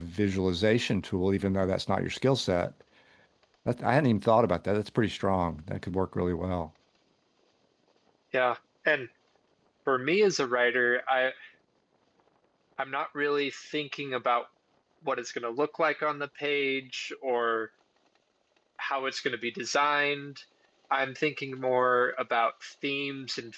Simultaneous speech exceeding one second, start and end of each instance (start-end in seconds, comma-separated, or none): none